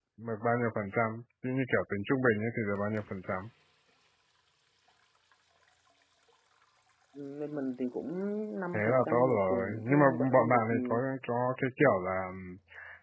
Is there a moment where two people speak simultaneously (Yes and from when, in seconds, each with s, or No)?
Yes, from 8.7 s